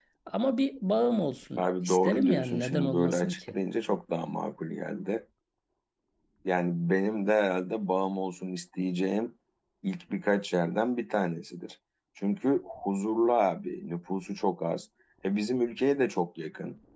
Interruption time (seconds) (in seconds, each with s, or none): 1.6 s